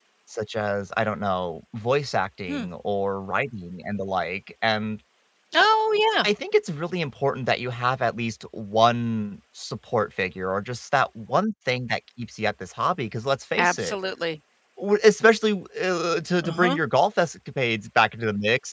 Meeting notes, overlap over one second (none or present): none